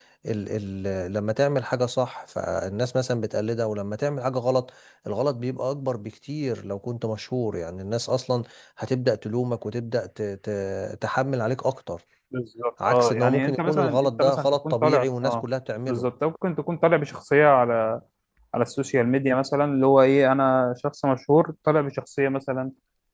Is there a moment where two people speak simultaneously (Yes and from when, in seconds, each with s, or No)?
Yes, from 12.8 s